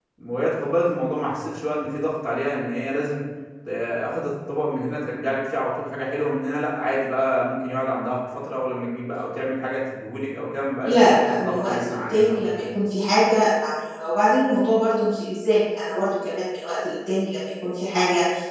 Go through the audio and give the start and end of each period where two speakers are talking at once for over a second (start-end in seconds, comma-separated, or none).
10.8-12.6